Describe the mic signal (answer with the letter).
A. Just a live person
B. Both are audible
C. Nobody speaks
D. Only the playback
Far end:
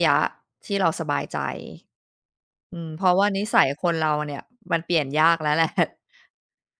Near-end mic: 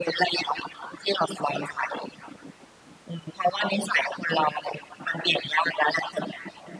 D